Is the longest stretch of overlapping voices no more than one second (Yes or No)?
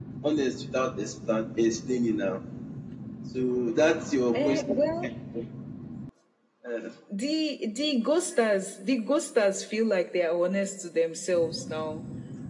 Yes